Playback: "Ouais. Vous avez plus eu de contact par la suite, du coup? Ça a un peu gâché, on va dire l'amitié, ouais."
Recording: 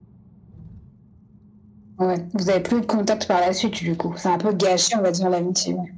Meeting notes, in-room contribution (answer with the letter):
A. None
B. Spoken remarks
A